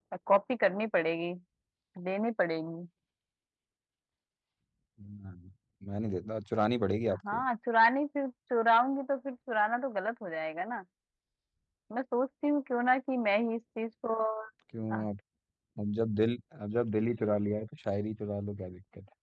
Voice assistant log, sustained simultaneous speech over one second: none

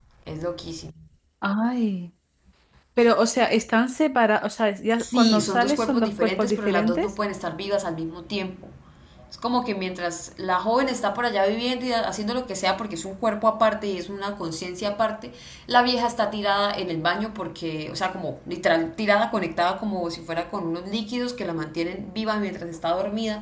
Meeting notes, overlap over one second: present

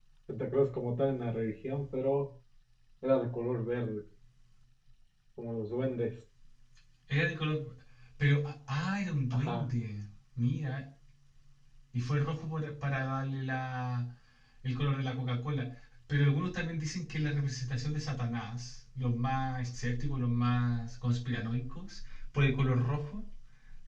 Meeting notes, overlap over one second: none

